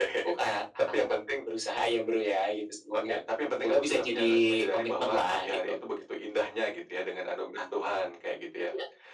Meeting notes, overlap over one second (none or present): present